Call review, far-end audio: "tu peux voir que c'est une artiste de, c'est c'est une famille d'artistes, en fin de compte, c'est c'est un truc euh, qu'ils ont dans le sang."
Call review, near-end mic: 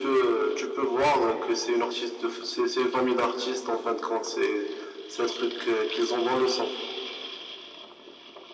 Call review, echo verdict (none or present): present